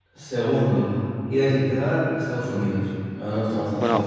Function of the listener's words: taking over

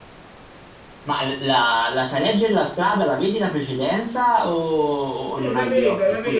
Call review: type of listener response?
taking over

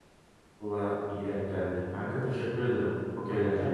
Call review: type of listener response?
taking over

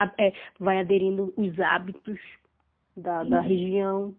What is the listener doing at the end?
listening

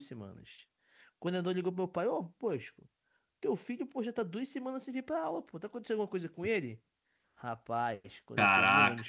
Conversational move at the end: listening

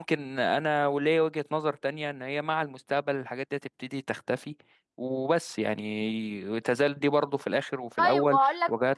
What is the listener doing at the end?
taking over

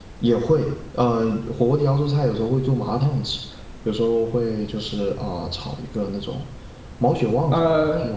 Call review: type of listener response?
taking over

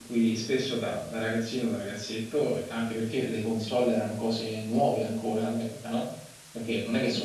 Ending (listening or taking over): listening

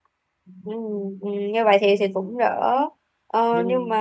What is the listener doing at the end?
listening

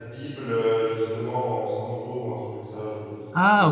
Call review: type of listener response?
taking over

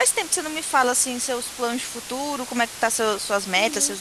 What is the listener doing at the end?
taking over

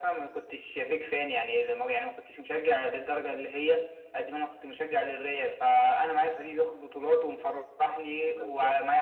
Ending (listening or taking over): listening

